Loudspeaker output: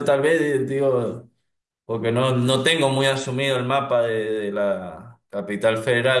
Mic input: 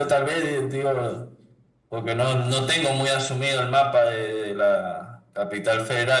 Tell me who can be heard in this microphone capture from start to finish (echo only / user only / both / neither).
echo only